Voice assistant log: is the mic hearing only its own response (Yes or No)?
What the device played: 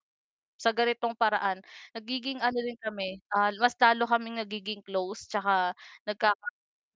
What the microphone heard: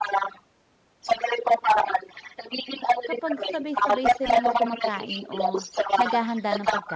No